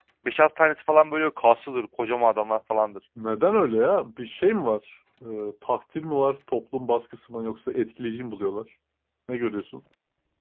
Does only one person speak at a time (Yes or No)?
Yes